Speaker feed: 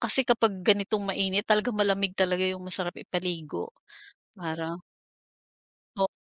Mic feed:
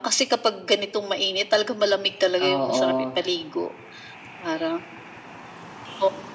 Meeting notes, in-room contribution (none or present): present